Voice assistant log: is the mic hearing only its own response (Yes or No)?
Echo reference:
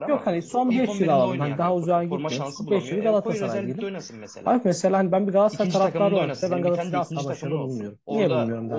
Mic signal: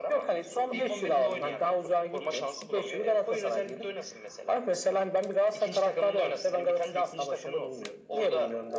Yes